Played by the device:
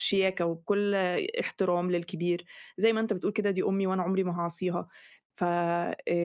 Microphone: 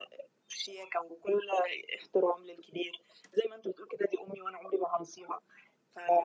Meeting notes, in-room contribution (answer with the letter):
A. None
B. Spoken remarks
A